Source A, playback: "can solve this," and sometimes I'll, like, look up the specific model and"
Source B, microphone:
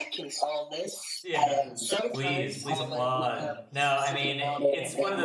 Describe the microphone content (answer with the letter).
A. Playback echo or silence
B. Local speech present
B